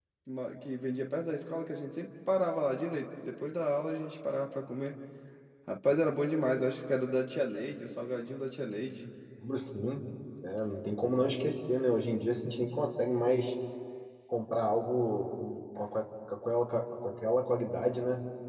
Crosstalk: none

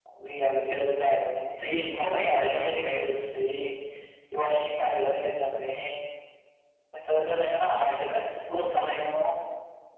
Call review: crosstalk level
present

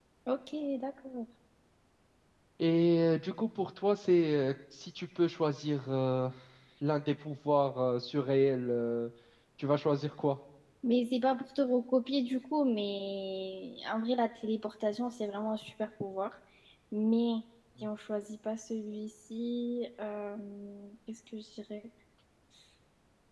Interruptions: none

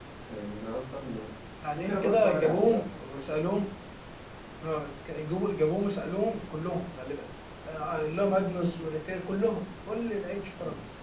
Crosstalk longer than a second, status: present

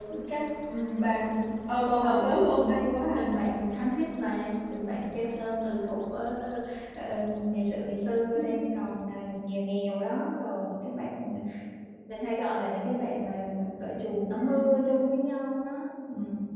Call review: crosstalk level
present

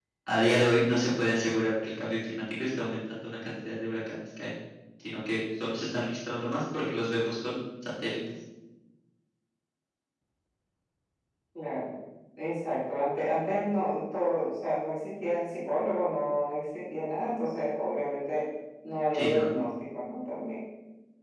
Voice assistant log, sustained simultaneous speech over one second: none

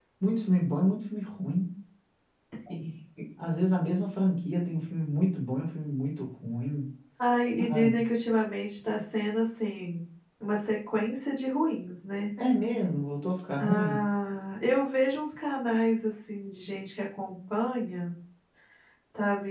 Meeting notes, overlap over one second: none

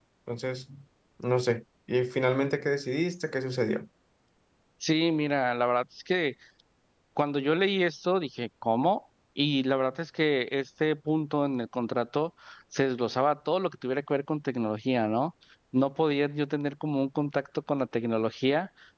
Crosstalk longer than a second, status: none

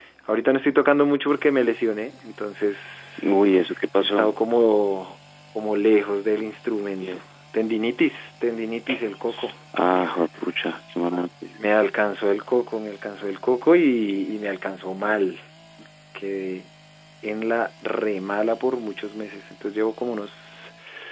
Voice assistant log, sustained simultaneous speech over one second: none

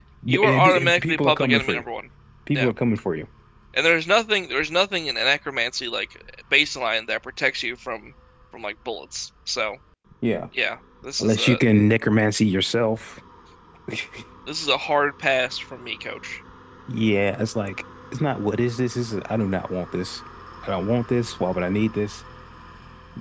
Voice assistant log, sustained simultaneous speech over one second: present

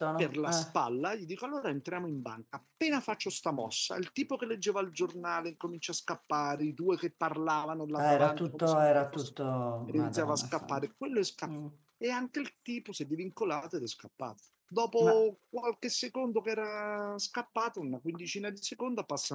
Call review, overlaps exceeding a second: present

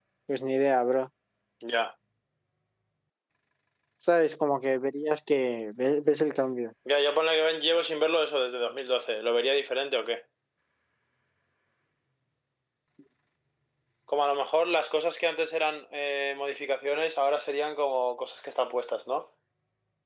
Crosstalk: none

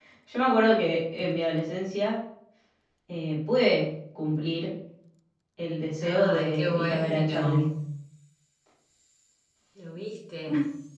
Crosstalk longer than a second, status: present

